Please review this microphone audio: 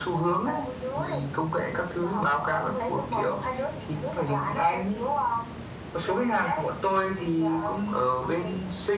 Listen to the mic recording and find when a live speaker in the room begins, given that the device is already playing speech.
none

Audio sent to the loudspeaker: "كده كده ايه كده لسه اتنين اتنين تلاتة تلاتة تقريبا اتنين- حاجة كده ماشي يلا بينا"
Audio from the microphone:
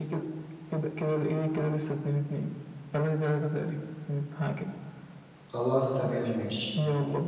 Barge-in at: 5.5 s

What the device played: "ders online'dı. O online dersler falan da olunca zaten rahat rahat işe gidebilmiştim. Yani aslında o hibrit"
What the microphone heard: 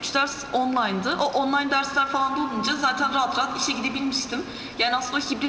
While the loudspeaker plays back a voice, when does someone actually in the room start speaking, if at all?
none

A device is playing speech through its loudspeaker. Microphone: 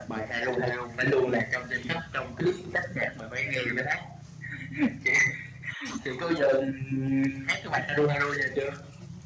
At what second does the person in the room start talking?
none

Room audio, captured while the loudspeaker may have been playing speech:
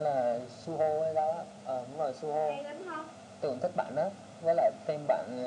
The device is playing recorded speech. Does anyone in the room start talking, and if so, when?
2.4 s

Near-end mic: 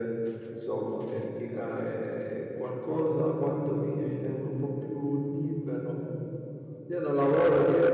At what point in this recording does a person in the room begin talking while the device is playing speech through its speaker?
none

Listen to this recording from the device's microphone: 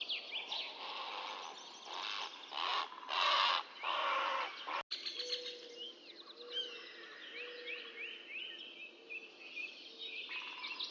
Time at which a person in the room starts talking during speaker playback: none

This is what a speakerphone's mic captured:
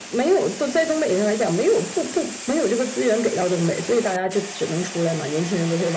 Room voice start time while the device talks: none

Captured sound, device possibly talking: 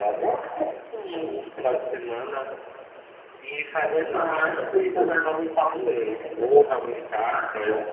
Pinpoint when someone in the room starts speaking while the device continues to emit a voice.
4.0 s

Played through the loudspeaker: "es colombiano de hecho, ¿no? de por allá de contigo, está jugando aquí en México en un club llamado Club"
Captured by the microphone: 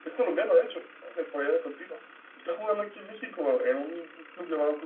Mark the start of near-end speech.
none

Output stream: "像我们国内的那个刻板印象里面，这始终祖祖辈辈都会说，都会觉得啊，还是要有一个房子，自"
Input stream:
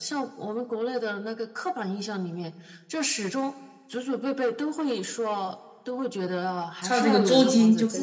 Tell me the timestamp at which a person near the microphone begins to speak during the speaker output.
6.8 s

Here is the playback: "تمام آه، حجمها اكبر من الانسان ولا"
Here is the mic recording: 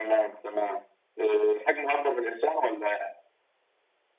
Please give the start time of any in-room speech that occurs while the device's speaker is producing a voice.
none

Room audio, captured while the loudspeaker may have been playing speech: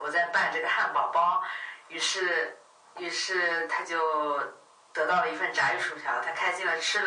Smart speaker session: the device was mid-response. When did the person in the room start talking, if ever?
none

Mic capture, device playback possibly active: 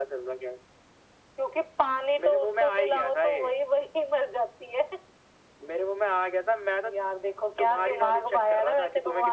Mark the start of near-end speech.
none

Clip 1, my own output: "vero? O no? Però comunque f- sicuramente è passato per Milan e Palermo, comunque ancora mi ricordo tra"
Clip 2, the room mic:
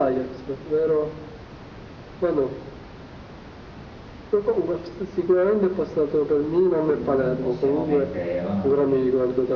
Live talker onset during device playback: 6.9 s

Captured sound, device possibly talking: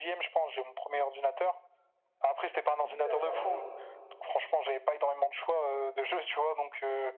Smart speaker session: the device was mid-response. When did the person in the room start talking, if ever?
2.6 s

